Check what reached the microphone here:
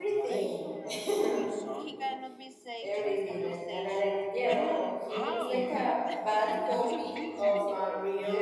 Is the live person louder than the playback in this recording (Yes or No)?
Yes